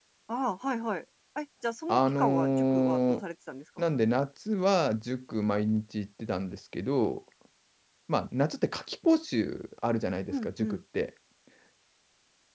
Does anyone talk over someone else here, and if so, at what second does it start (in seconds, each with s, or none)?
1.9 s